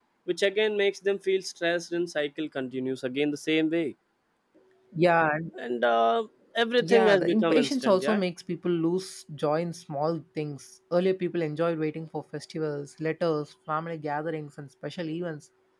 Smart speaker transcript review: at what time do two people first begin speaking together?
6.8 s

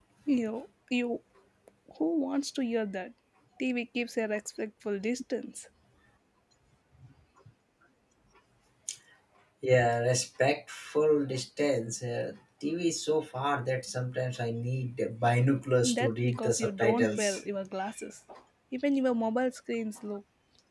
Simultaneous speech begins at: 15.8 s

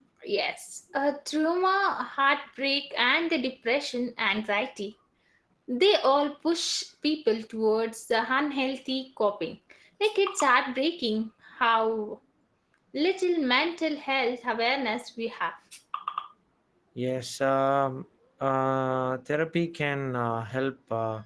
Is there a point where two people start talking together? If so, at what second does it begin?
none

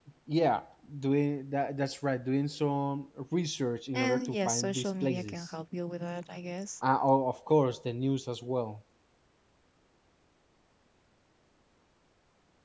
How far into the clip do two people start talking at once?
3.9 s

